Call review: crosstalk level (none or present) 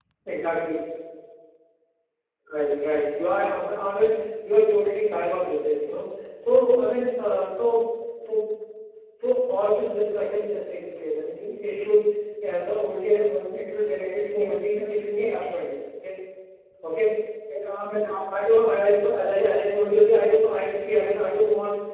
present